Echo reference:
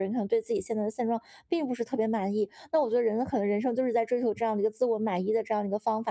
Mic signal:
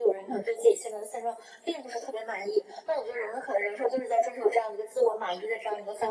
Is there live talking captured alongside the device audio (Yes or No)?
No